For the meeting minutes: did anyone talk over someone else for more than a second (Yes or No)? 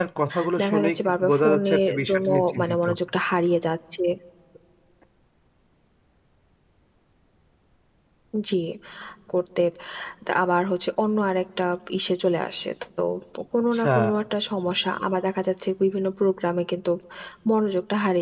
Yes